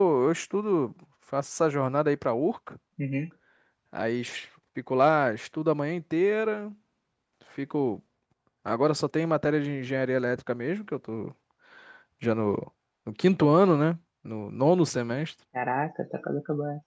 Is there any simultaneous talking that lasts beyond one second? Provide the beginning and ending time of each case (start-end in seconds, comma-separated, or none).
none